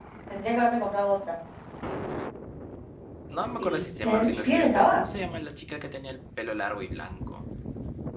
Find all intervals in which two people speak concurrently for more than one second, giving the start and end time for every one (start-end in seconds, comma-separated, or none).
3.5-5.0